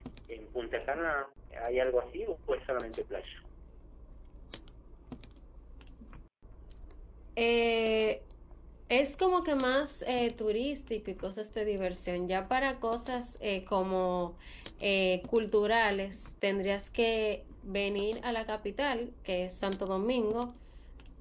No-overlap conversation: Yes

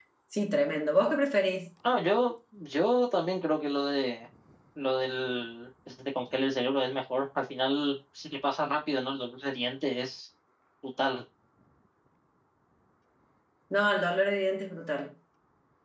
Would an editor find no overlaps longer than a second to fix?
Yes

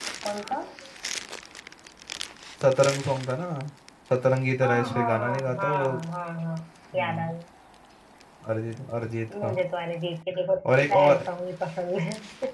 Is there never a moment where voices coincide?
No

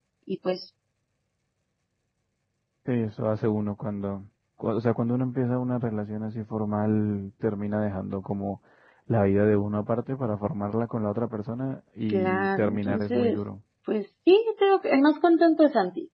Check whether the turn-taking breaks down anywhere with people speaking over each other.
Yes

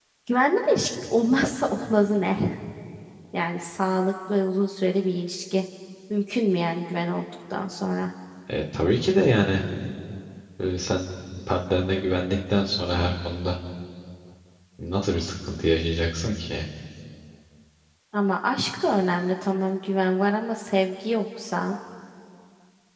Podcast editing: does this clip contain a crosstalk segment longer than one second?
No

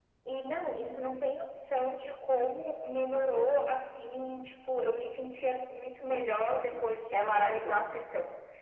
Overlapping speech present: Yes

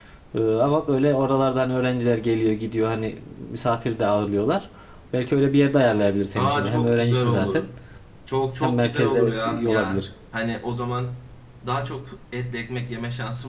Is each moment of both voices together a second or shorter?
No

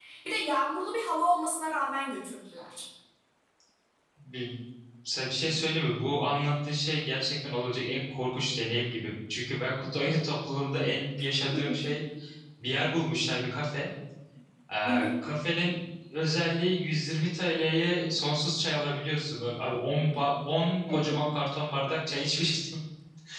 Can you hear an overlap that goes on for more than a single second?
No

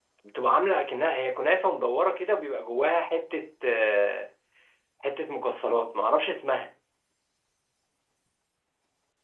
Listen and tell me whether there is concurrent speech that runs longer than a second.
No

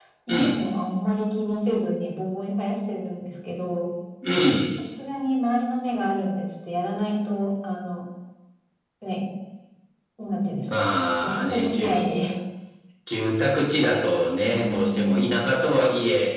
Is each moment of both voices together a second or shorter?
No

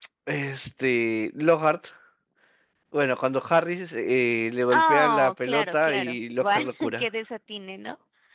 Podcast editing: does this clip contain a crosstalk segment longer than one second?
Yes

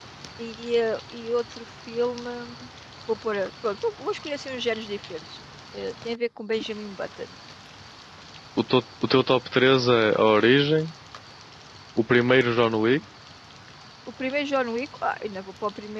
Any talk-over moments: No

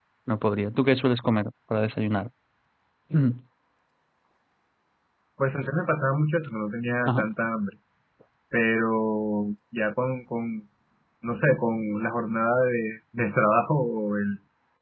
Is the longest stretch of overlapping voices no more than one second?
Yes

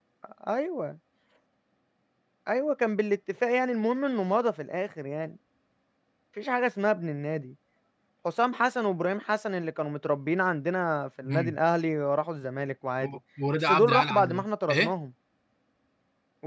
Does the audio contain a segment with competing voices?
Yes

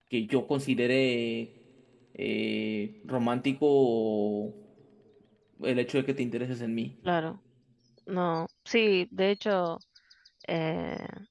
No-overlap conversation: Yes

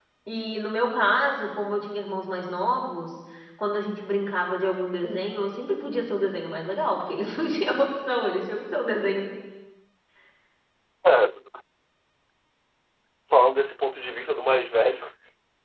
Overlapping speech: No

